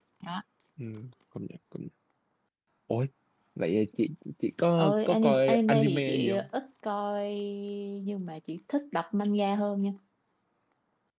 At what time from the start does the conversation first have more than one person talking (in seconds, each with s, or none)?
4.8 s